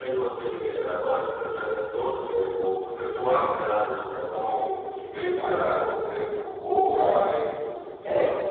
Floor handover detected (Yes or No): Yes